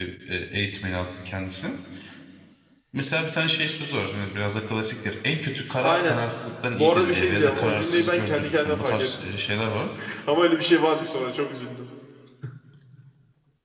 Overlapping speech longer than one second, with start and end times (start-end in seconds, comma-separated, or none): 6.8-9.1